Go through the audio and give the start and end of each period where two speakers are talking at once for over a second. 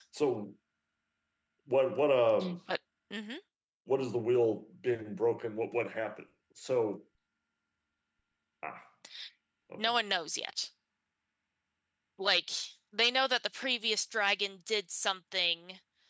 none

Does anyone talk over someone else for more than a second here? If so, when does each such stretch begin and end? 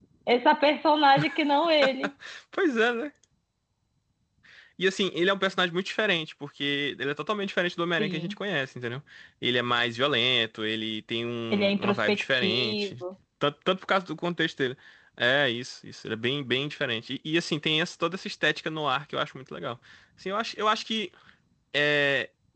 11.5-12.9

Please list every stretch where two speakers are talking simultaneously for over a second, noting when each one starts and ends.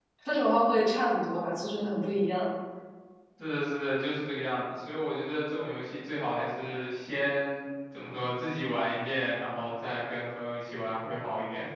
none

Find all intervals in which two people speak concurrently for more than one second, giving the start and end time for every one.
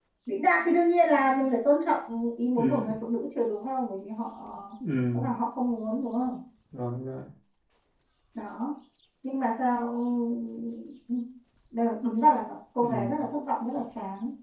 none

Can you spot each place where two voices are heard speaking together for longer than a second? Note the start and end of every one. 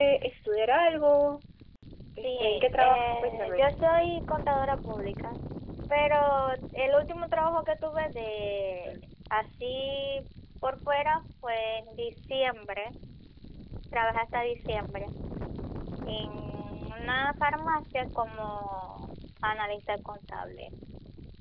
2.2-3.6

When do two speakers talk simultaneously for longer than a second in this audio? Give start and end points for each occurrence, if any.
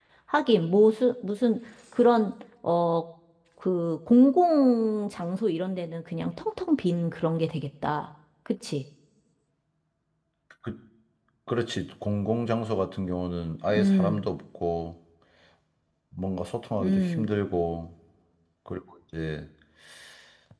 none

